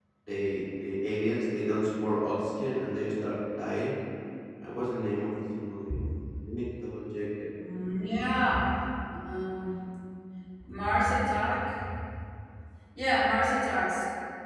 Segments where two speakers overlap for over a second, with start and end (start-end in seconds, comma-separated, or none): none